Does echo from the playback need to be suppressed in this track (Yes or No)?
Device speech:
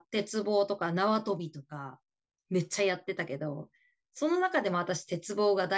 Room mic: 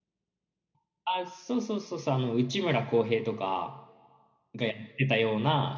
No